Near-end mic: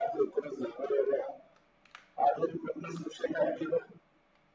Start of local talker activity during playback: none

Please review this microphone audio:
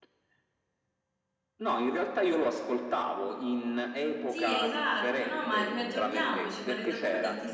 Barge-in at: 4.2 s

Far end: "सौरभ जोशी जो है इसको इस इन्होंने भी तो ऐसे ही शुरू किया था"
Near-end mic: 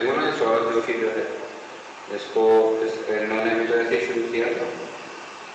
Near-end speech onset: none

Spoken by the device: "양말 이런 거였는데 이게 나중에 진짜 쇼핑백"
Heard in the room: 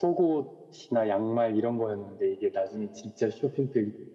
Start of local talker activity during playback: none

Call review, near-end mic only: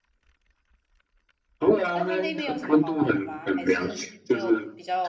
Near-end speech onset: 1.9 s

